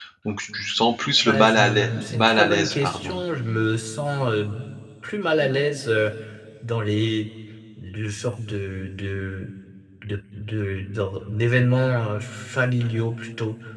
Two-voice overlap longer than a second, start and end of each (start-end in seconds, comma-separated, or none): 1.2-3.2